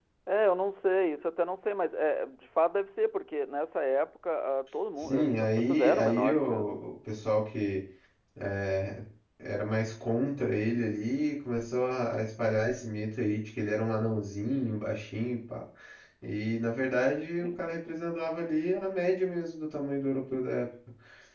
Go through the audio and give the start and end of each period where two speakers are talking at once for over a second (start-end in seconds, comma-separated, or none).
5.0-6.8